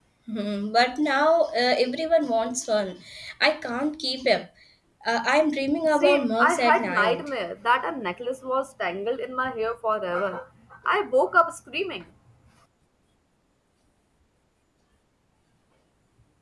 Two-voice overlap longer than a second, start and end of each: 5.9-7.2

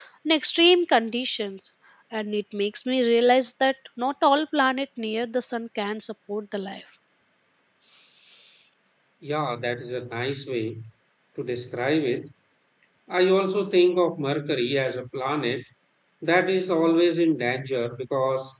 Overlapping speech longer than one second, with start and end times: none

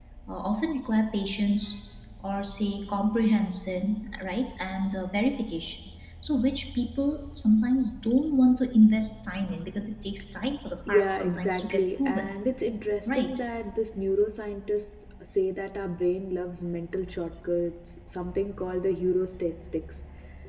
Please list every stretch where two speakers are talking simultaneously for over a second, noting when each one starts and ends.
10.9-12.3

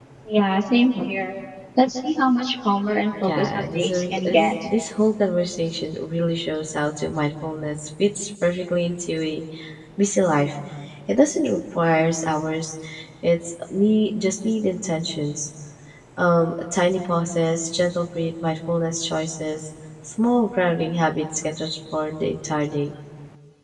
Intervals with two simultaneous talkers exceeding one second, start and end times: 3.2-4.5

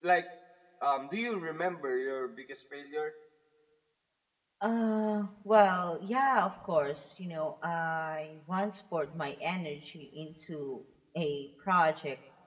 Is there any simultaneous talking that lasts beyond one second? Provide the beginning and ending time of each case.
none

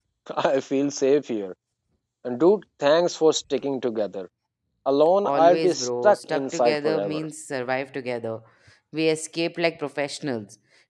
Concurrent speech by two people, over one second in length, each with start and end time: 5.2-7.2

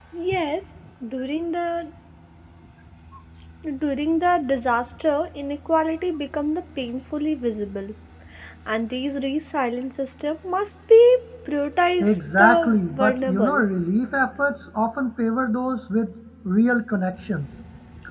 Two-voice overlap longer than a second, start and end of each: 12.0-13.6

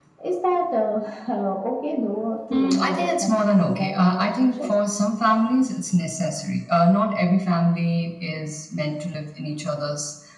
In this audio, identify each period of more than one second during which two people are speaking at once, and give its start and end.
2.5-4.7

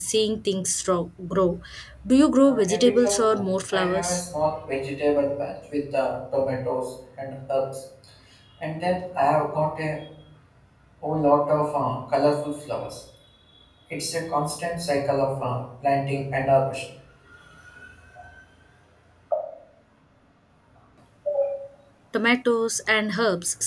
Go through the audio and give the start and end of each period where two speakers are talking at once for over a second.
2.4-4.2

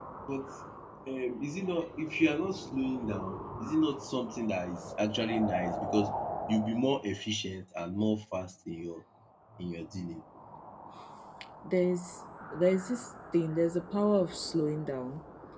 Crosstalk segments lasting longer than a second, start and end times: none

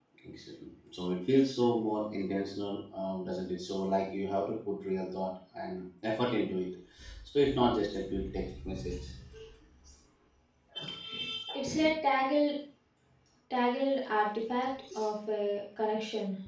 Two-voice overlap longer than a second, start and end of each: none

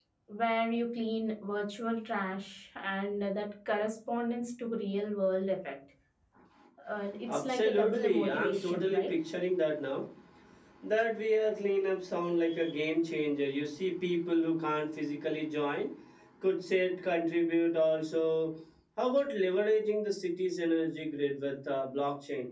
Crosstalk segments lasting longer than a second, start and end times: 7.3-9.1

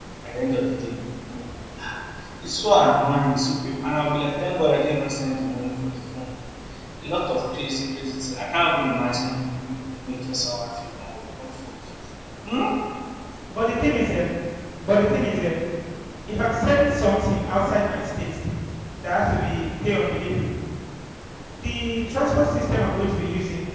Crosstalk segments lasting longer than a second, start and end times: none

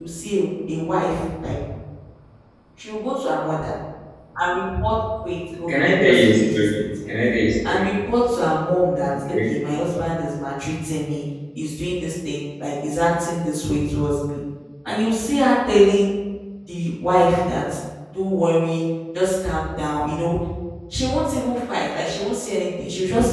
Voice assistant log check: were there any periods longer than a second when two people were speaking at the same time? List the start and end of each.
5.7-7.1

